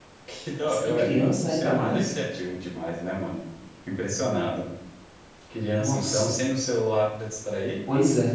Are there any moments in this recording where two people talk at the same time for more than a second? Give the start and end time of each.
0.8-2.2

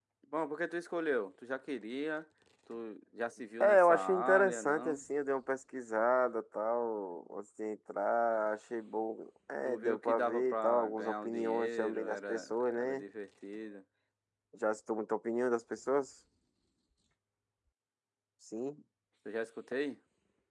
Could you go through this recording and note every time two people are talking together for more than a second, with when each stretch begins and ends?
3.6-5.0, 9.7-13.0

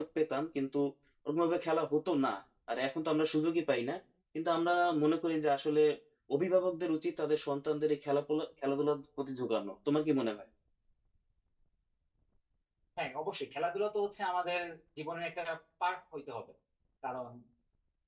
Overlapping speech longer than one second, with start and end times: none

